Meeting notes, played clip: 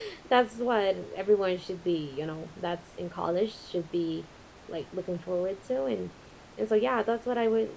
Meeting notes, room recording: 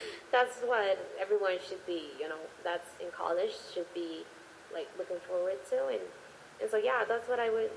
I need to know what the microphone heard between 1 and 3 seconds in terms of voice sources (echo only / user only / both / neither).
echo only